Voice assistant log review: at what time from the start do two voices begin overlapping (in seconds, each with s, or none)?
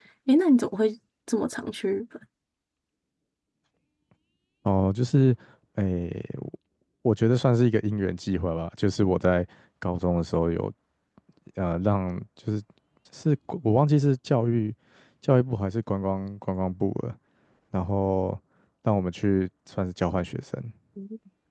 none